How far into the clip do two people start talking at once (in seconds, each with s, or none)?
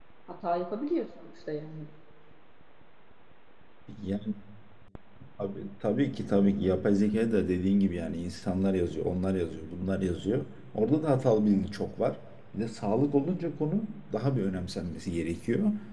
none